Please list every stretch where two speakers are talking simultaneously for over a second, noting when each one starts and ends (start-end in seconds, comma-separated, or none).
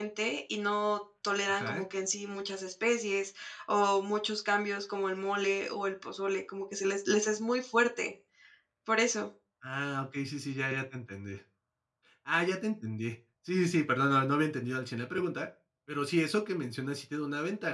none